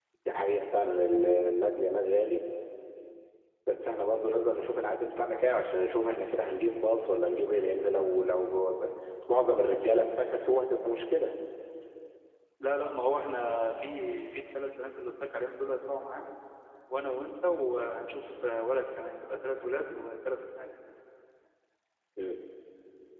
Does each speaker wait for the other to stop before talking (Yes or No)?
Yes